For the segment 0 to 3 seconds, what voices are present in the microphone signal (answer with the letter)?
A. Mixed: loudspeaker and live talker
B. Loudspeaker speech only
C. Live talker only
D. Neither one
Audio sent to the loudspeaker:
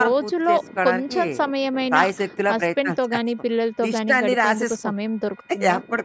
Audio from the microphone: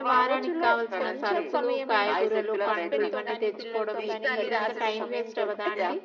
A